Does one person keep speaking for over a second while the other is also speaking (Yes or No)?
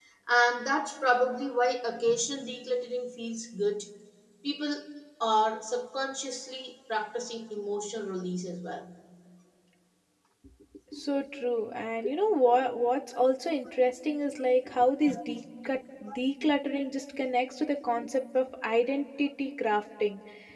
No